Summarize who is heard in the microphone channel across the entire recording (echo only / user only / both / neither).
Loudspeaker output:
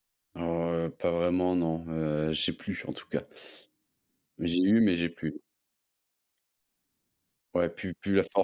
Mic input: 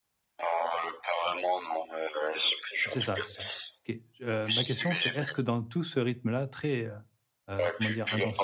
both